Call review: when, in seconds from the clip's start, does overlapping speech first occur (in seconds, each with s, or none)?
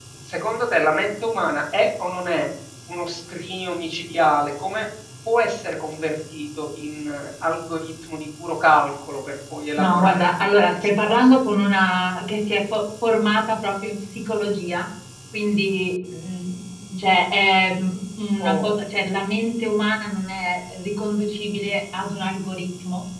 9.8 s